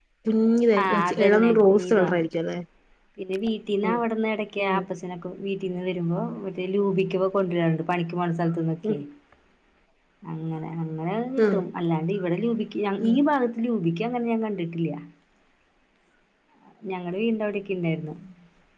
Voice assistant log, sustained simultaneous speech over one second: present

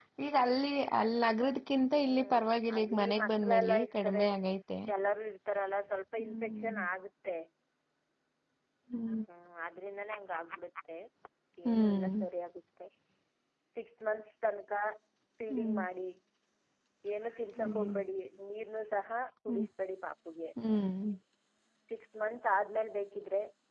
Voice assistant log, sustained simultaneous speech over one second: present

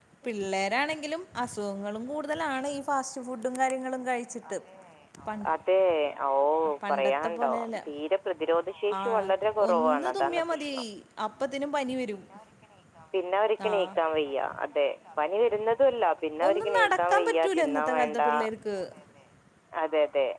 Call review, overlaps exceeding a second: present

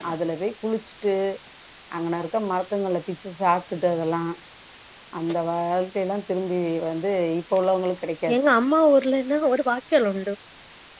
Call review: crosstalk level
none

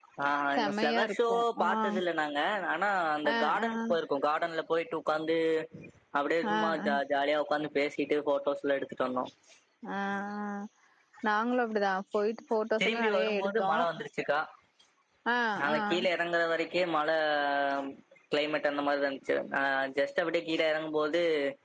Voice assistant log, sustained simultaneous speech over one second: present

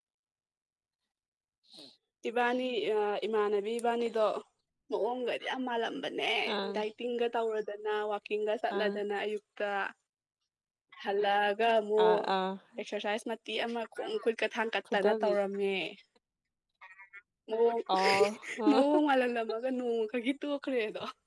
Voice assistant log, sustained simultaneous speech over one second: none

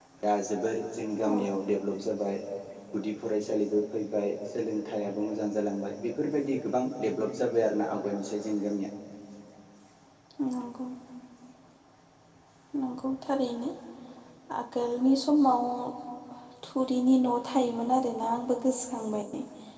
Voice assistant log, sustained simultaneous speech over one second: none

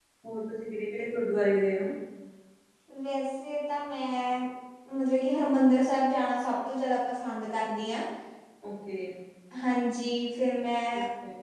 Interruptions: none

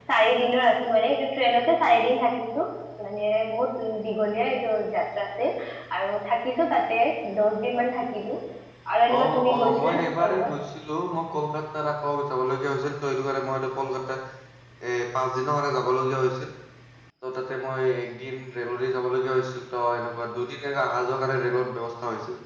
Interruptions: present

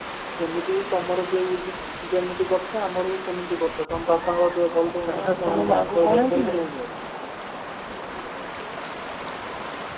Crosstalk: present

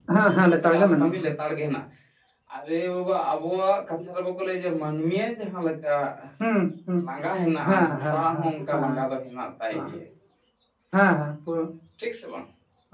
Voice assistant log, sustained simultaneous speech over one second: present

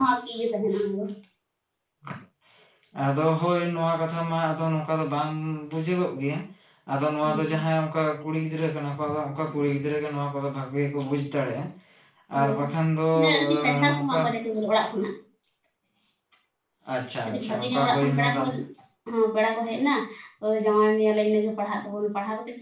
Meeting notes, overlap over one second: present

